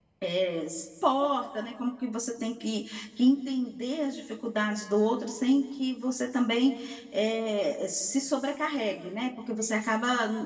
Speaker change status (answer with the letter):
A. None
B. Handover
A